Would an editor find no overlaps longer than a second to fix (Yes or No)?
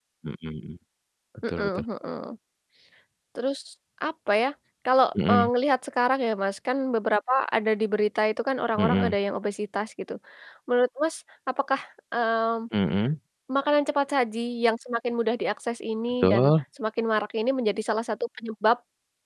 Yes